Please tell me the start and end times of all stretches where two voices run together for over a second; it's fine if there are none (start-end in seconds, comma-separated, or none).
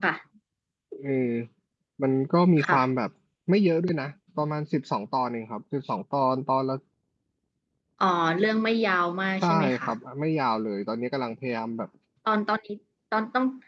none